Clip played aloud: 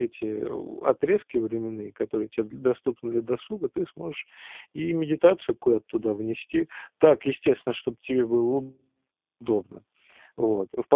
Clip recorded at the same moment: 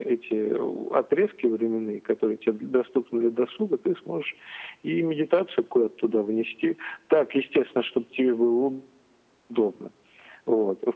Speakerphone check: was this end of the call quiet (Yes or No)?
Yes